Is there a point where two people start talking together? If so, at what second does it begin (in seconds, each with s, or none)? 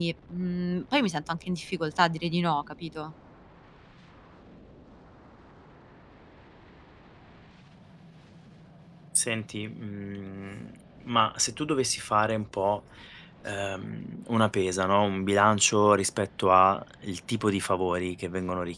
none